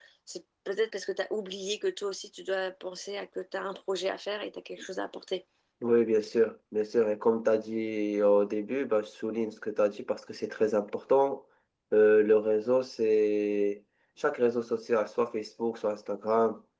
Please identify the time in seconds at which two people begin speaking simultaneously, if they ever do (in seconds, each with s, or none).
none